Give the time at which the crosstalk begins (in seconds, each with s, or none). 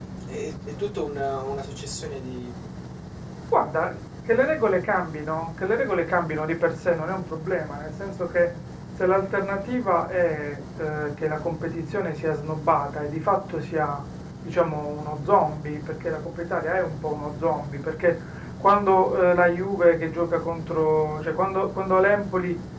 none